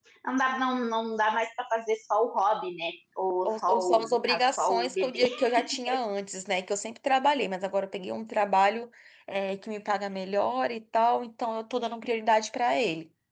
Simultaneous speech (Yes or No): Yes